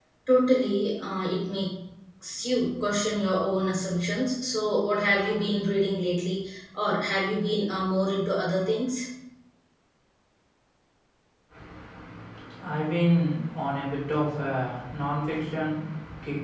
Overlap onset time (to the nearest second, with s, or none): none